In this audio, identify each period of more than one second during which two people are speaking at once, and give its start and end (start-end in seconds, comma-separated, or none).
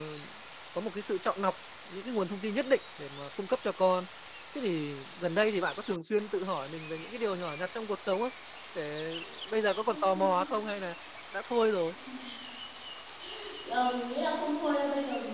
none